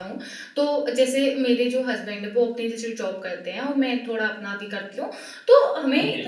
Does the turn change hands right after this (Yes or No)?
No